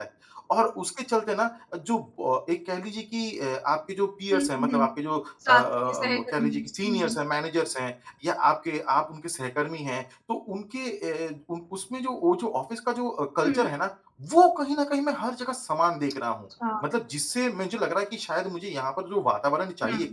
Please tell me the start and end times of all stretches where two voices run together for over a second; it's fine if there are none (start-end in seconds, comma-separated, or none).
5.5-7.1